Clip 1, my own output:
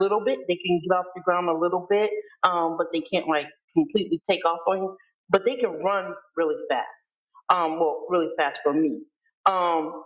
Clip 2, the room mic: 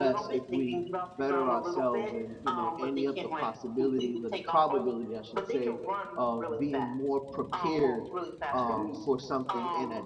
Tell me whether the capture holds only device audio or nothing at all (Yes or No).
No